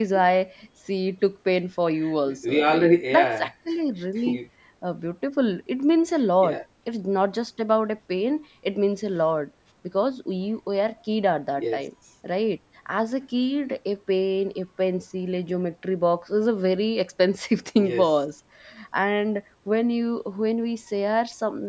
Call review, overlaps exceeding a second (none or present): present